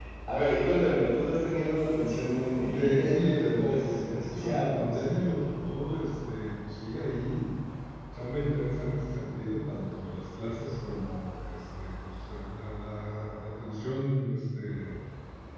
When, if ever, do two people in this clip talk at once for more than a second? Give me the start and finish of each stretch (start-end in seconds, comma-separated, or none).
2.6-5.3